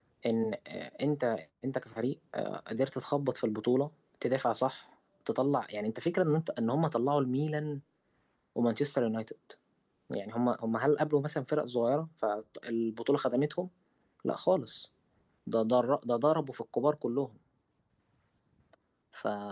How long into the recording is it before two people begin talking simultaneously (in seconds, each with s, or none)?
none